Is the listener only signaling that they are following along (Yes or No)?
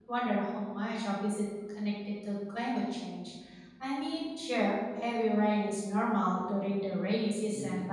Yes